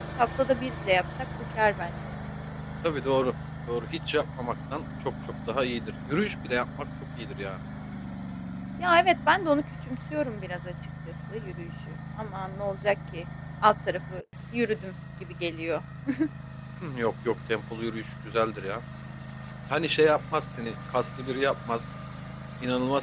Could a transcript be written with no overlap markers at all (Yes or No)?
Yes